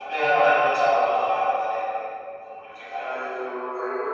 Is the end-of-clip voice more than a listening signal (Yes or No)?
Yes